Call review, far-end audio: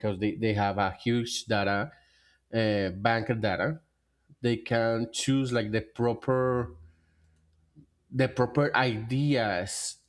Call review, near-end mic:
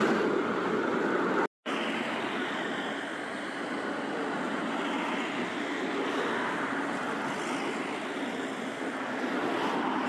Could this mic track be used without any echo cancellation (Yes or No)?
Yes